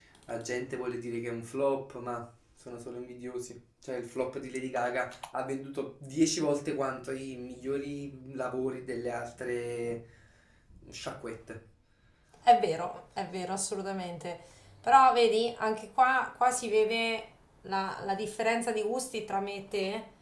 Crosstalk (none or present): none